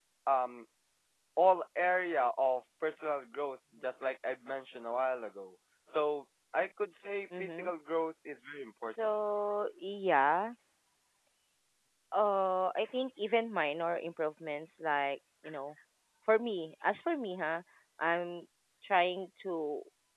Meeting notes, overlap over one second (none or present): none